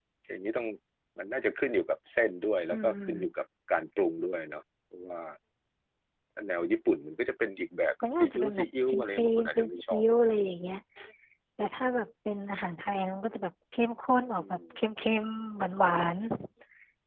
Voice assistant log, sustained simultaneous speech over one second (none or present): present